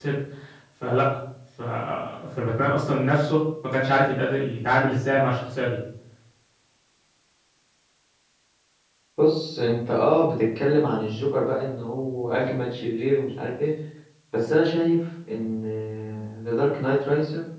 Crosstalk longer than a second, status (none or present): none